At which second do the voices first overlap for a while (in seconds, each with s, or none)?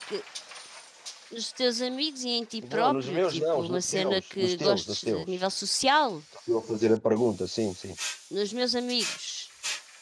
2.6 s